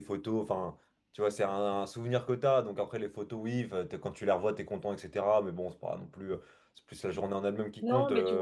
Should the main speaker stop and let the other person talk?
Yes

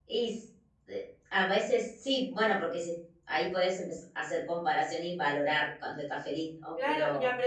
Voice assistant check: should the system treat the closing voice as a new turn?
Yes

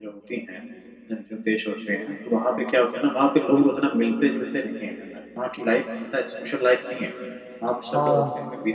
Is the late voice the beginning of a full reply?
No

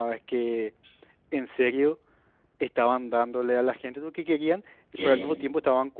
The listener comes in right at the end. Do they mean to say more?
No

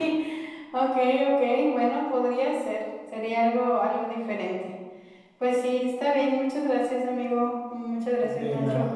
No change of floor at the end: No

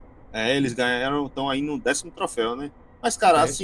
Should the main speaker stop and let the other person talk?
No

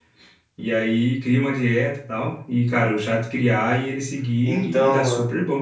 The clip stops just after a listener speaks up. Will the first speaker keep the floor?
Yes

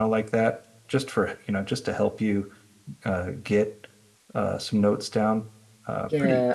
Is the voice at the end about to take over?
Yes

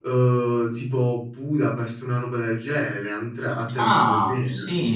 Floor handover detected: Yes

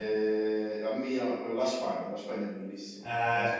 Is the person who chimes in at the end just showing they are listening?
No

